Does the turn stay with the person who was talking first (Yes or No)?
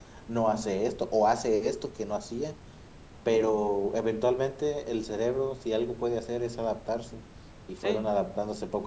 Yes